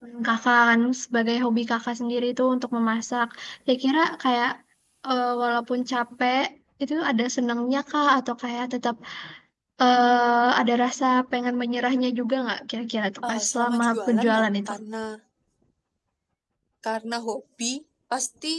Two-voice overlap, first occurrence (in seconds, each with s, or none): 13.2 s